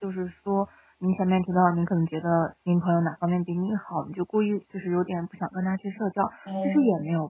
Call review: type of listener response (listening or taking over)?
listening